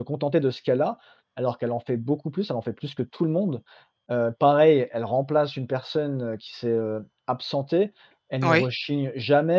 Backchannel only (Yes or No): Yes